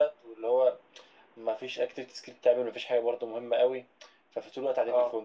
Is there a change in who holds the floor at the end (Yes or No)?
No